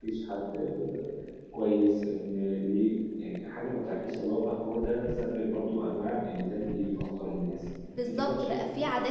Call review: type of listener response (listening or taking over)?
taking over